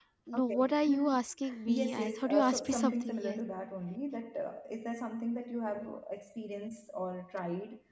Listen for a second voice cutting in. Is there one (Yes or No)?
Yes